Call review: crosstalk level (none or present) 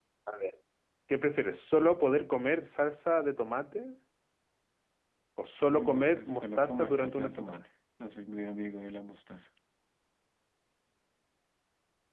present